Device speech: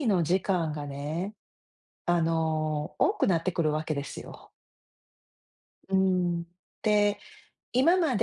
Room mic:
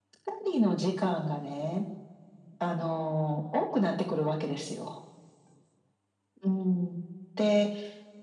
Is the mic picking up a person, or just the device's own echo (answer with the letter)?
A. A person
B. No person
B